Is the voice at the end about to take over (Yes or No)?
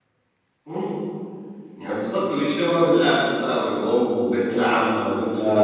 Yes